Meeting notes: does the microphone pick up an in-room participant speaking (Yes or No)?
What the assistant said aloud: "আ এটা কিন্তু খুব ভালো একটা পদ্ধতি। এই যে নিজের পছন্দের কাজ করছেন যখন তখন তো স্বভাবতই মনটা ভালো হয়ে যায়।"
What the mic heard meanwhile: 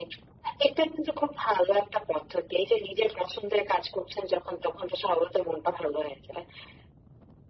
No